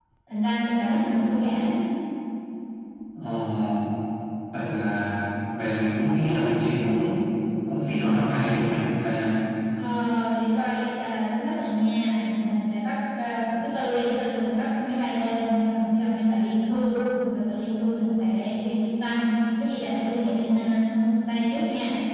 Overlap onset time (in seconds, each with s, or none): none